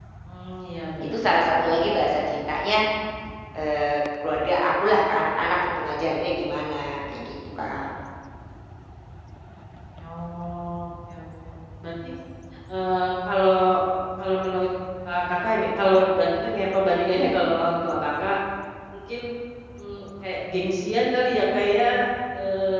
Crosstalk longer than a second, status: present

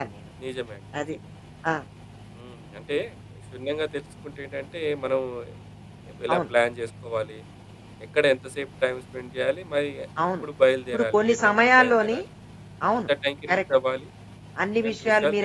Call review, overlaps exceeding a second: present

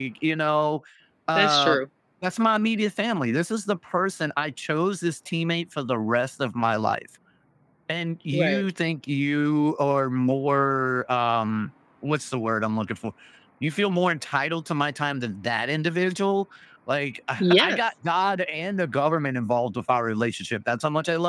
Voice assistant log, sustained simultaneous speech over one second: none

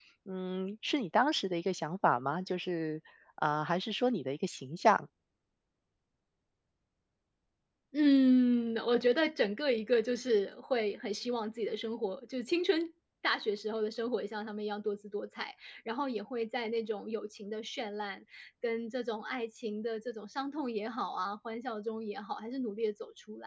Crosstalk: none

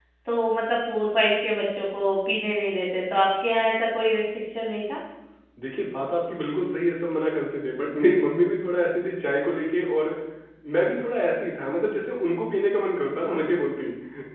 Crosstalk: none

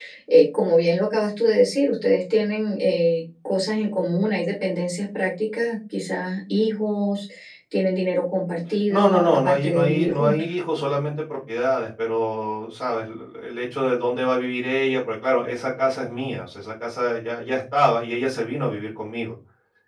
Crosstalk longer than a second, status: present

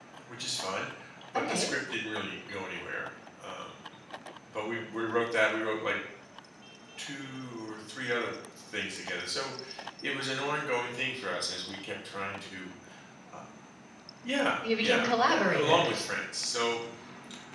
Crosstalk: present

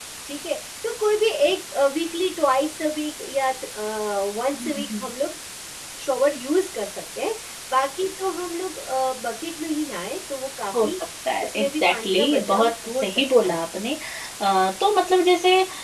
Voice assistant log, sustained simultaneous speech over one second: present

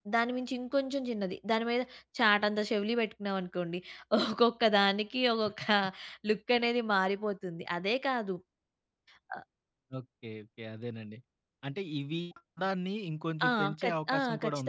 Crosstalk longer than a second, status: present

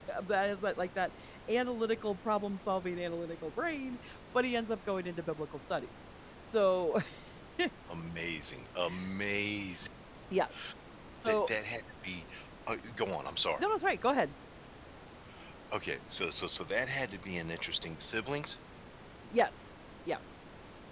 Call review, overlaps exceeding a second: none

